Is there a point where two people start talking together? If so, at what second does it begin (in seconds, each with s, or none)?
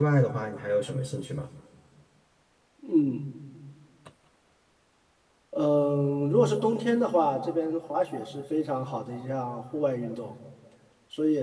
none